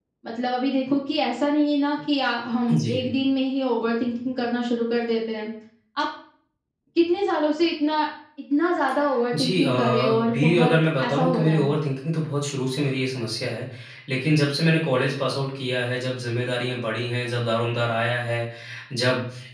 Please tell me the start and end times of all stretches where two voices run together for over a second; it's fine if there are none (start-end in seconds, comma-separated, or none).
9.3-11.7